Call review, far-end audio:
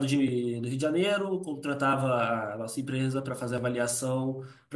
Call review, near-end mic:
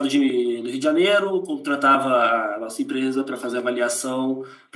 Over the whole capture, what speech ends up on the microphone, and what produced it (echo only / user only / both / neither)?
echo only